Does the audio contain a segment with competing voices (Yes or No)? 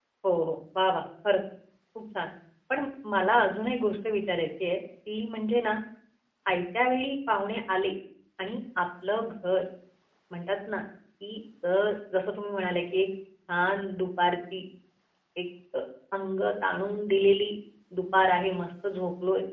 No